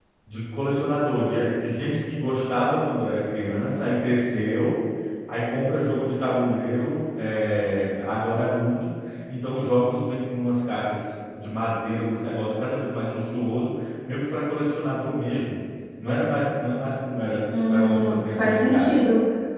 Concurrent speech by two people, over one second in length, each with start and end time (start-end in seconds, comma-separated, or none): 17.7-18.9